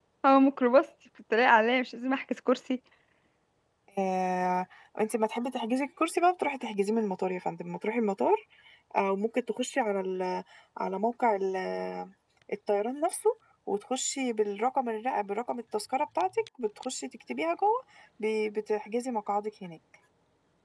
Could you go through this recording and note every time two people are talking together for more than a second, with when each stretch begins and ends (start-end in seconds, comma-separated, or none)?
none